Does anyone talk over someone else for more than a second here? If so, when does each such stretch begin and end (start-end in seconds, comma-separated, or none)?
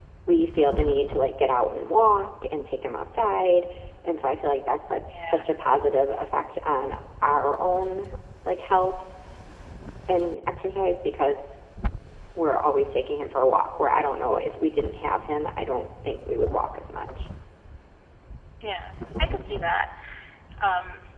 none